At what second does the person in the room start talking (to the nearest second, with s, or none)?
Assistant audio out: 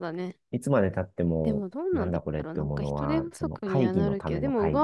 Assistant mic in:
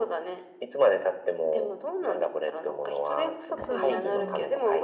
4 s